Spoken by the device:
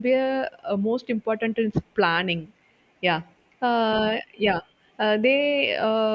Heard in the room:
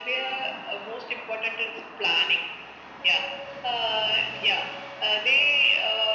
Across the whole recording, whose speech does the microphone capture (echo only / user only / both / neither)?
echo only